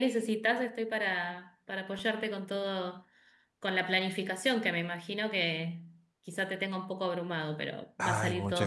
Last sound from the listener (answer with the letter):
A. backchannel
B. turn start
B